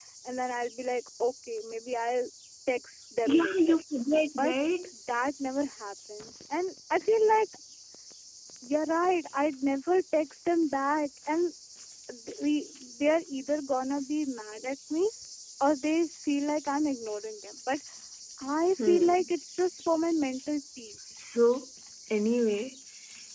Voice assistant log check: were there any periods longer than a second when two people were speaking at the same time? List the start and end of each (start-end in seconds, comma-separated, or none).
none